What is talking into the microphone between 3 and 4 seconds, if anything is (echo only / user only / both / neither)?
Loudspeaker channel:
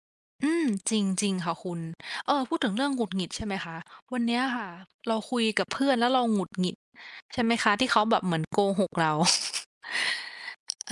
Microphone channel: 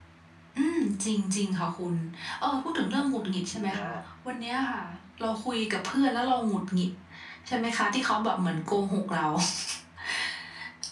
both